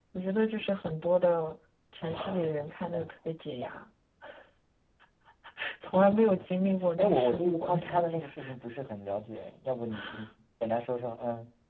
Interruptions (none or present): present